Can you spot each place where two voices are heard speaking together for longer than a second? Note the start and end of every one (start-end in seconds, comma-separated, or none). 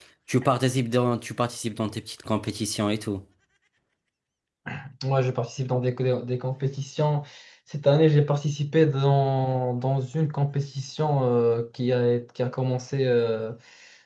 none